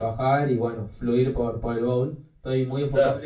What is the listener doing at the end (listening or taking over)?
listening